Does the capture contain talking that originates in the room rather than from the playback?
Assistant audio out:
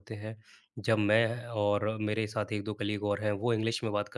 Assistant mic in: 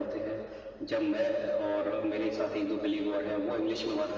No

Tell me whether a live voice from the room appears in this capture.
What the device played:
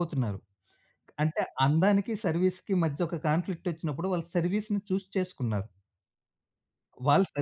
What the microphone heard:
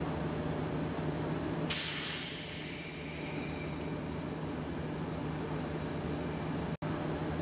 No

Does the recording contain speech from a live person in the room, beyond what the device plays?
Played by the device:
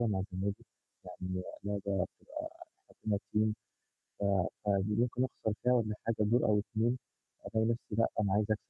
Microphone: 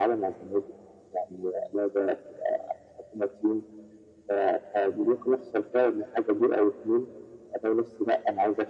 No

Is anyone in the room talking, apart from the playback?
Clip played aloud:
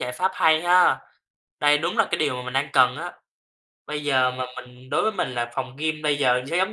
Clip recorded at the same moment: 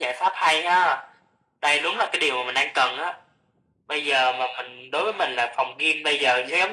No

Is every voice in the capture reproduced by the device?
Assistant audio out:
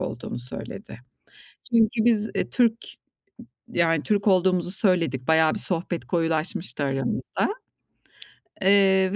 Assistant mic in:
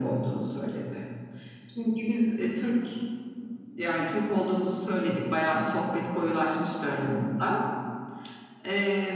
Yes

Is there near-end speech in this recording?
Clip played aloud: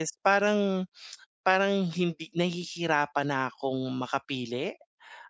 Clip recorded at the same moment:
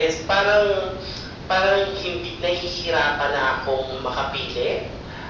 No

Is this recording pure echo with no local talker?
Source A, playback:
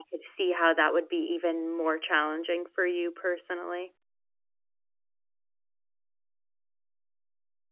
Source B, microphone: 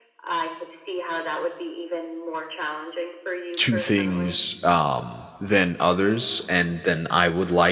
No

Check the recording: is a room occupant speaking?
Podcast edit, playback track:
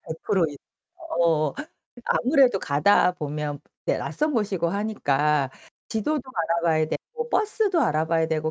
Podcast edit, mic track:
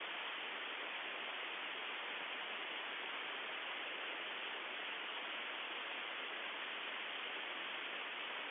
No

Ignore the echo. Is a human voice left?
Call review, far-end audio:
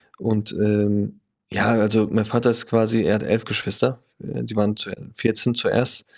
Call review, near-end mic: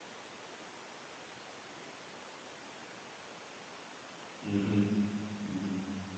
Yes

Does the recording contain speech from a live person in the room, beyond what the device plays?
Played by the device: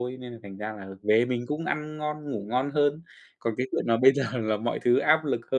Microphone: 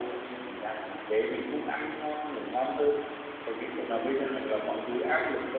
No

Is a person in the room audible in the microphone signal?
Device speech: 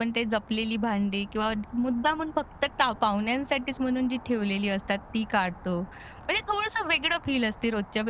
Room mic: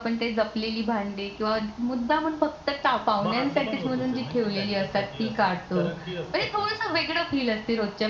Yes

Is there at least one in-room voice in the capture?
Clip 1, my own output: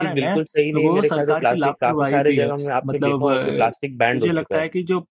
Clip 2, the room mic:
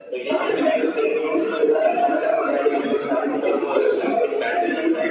No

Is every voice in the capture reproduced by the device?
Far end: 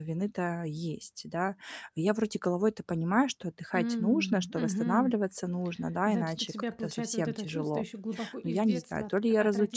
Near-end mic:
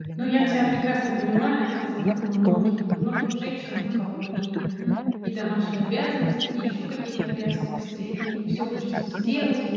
No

